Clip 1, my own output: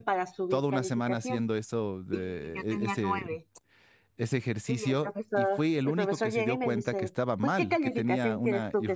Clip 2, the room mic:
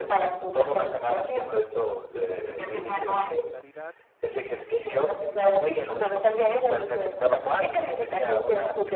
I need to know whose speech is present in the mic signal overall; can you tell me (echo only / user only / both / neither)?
both